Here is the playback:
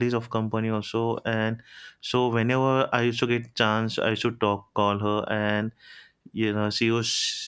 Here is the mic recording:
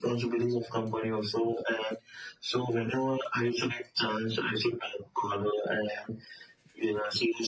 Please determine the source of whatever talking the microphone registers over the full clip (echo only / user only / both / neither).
echo only